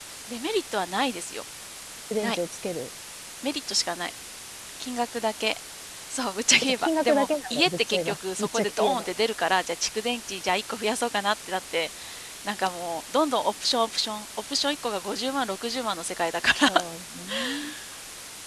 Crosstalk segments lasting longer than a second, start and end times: 6.6-9.1

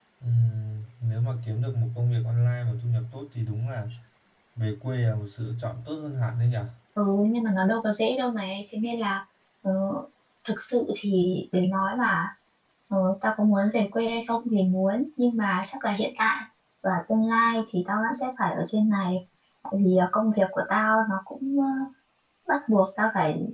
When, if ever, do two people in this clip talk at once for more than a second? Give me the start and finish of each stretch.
none

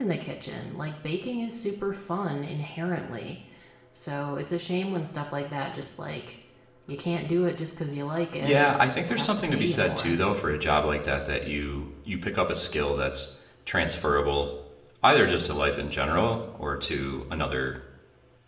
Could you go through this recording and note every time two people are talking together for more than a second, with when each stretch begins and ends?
8.4-10.2

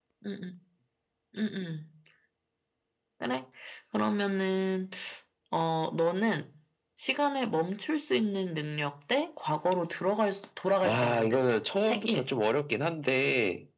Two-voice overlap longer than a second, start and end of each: 10.8-12.2

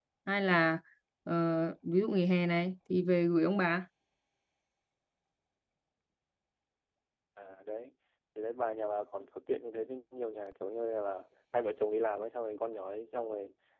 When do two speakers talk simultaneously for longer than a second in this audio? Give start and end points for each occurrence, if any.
none

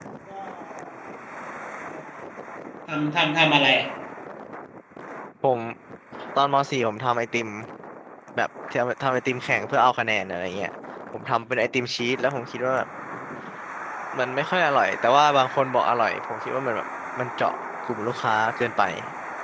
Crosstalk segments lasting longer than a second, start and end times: none

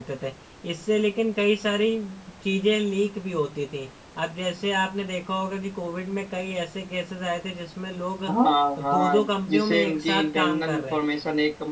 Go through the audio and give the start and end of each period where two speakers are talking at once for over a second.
8.8-11.0

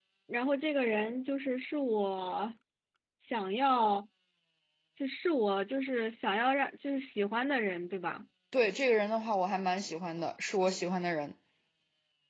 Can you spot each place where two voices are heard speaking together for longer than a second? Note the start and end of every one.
none

